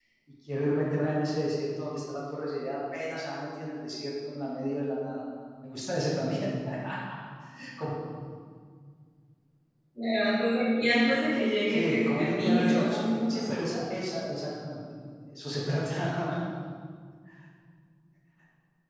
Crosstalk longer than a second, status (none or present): present